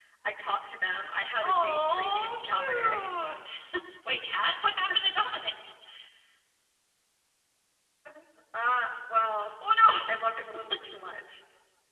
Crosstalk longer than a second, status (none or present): present